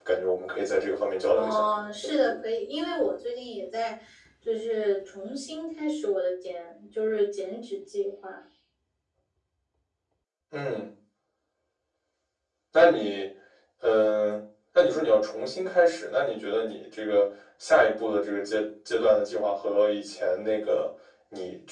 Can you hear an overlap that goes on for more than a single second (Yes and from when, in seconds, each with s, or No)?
No